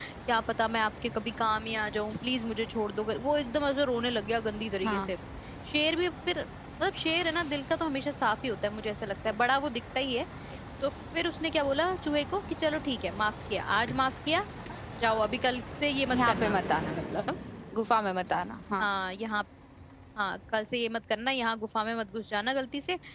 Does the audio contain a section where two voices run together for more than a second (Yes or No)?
No